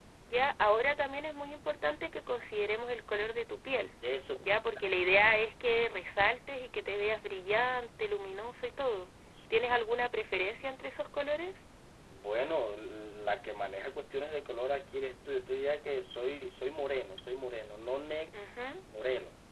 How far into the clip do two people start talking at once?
none

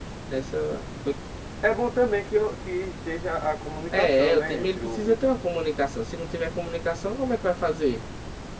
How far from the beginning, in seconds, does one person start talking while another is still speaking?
3.9 s

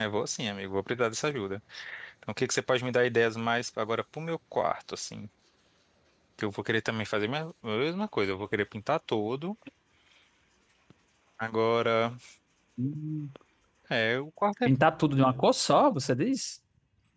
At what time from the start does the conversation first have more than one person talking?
none

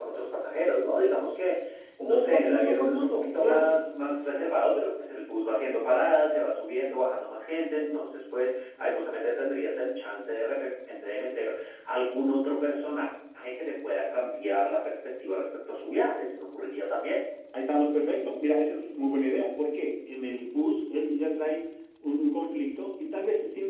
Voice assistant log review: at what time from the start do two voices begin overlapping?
2.0 s

